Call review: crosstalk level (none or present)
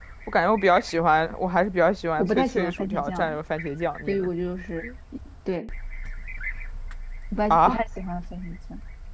present